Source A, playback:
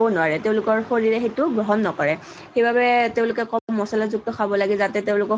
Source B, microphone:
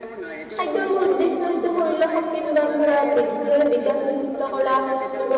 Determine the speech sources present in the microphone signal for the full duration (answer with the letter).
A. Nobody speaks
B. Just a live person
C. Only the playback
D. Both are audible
D